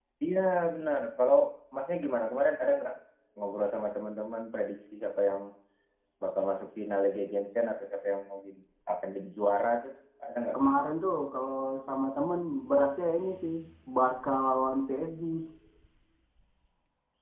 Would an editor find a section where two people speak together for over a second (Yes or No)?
No